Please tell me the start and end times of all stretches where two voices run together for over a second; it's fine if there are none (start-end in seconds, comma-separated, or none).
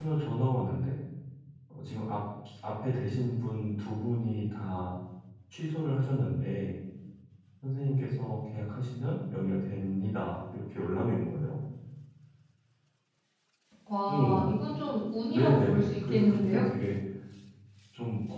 15.3-16.6